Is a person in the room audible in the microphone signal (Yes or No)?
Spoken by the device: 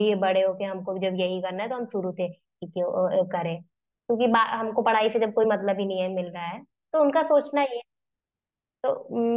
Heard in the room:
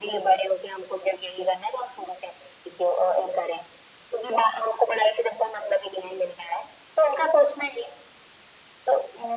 No